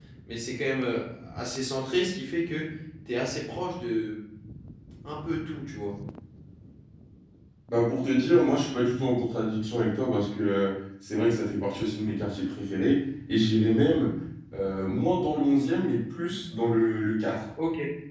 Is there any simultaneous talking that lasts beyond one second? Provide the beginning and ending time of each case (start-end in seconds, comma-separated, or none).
none